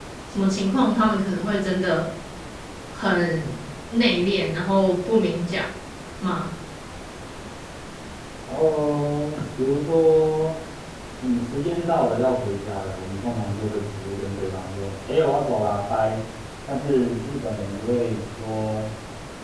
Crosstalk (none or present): none